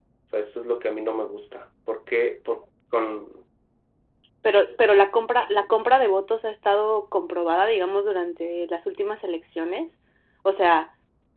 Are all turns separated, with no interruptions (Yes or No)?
Yes